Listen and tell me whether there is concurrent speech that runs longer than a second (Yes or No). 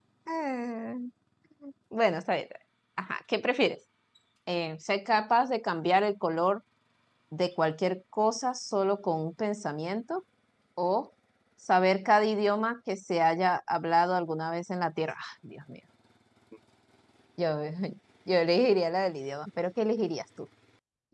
No